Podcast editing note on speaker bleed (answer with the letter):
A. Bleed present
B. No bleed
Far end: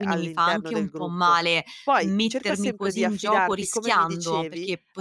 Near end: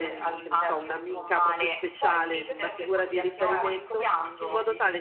A